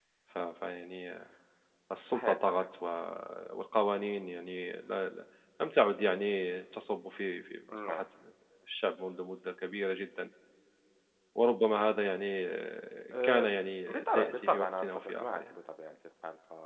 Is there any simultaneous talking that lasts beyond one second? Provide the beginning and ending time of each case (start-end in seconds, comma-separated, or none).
13.9-15.4